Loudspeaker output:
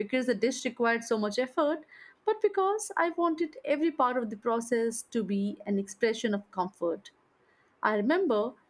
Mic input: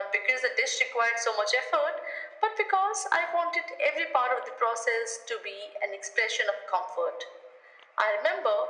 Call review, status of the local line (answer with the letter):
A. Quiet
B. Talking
A